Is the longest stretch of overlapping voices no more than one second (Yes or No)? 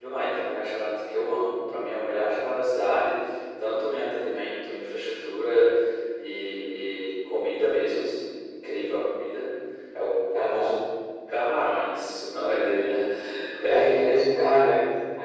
Yes